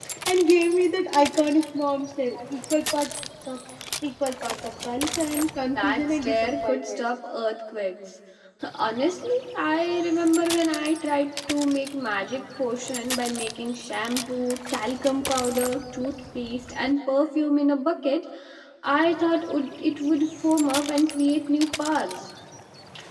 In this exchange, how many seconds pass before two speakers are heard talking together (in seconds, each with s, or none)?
5.8 s